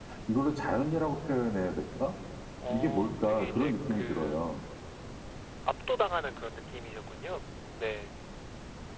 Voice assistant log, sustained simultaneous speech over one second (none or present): present